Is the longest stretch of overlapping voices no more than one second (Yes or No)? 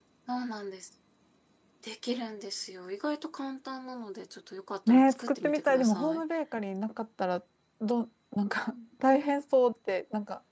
No